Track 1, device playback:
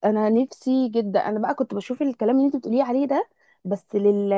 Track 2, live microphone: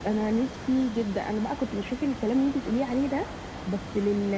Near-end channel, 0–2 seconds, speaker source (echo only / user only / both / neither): echo only